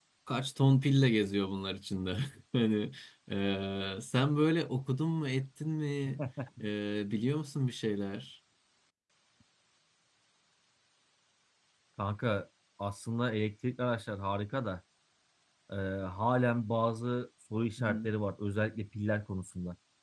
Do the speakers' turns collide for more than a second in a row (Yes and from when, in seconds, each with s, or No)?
No